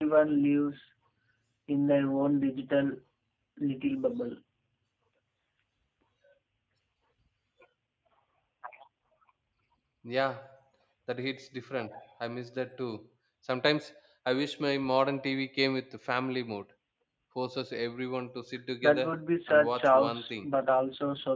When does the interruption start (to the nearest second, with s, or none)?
19 s